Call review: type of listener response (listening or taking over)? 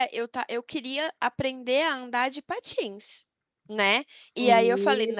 listening